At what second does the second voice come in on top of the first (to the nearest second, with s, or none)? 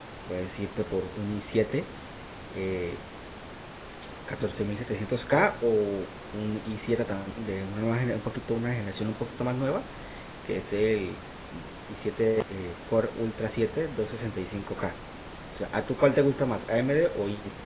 none